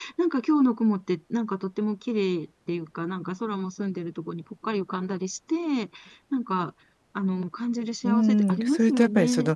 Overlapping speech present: Yes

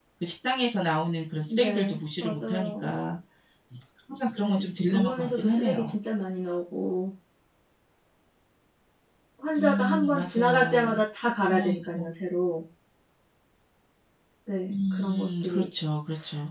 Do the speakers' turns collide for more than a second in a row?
Yes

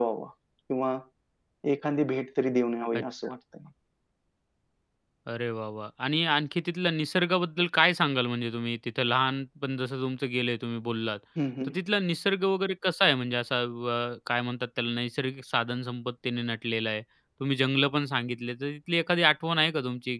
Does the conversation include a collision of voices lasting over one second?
No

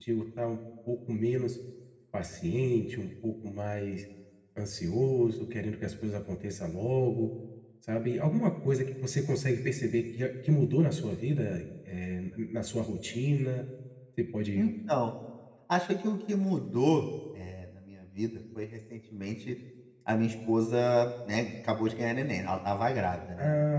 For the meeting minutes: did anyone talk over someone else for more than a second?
No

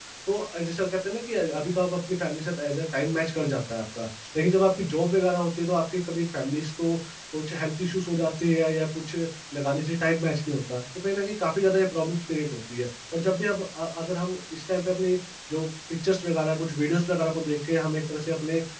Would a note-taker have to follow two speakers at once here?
No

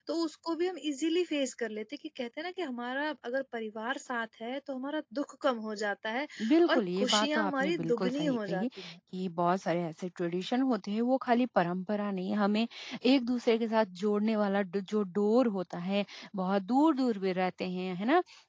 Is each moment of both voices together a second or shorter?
No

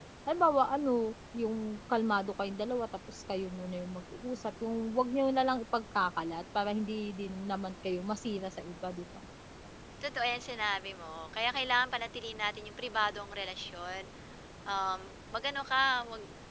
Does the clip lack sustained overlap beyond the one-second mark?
Yes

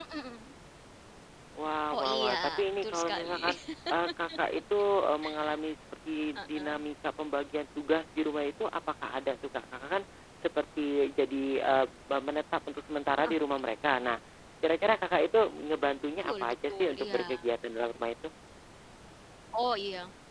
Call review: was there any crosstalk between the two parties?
Yes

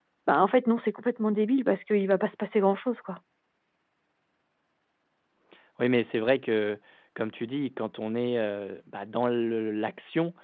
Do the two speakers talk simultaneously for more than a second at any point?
No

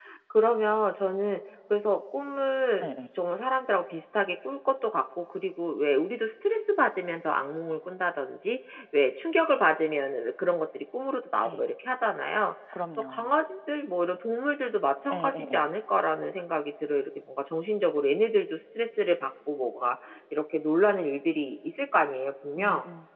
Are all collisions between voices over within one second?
Yes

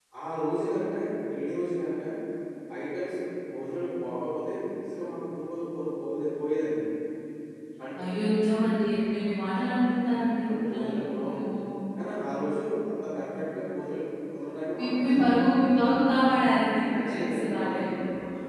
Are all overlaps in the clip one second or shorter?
No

